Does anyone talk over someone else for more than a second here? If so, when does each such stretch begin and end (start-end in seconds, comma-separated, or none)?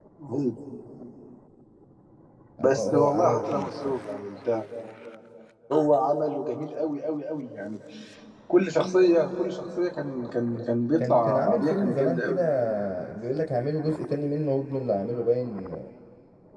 2.6-4.0, 11.0-12.4